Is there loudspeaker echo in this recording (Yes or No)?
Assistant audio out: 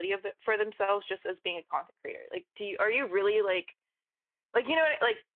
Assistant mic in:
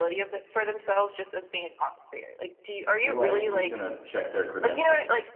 Yes